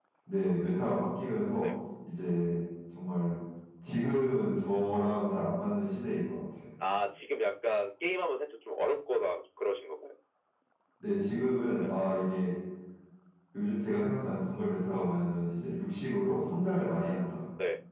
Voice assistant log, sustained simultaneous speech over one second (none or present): none